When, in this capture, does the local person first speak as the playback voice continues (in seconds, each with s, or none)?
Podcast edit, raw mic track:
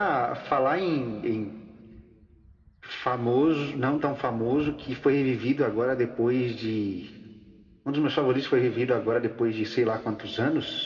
none